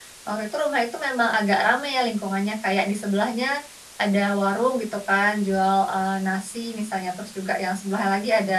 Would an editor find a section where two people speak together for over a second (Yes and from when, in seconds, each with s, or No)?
No